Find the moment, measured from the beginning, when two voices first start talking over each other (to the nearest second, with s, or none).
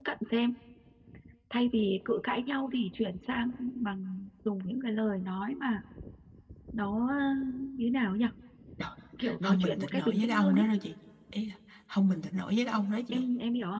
9 s